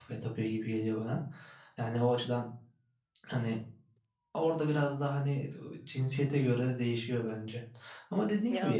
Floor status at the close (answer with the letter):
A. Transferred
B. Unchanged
B